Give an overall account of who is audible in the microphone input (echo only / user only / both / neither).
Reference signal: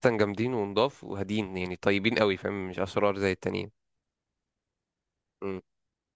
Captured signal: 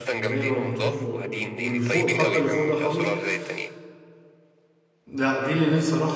both